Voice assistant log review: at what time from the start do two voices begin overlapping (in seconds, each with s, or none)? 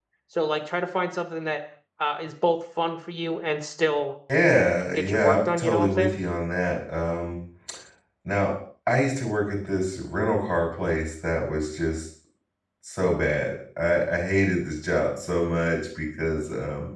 4.9 s